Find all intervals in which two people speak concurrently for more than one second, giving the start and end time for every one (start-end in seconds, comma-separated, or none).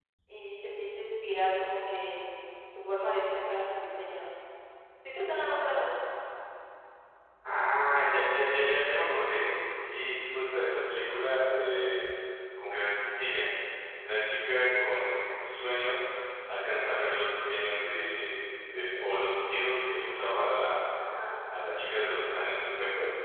none